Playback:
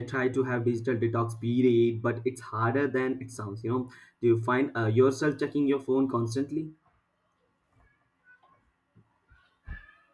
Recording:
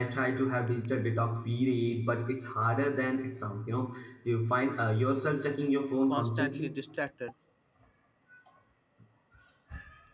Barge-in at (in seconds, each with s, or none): 6.0 s